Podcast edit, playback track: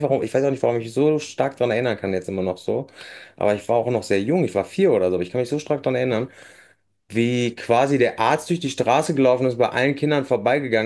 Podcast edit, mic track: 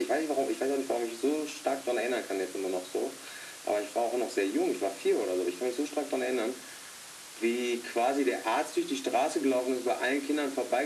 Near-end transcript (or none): none